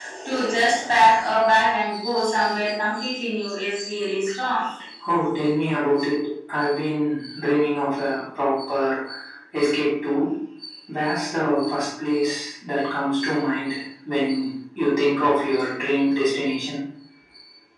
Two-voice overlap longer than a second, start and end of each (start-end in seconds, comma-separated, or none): none